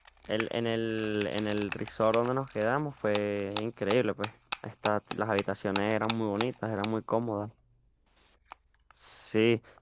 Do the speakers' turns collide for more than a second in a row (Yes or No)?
No